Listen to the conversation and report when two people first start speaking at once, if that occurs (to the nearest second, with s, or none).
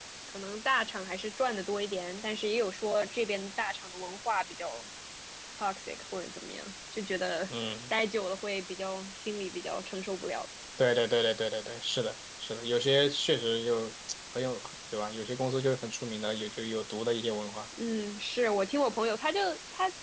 none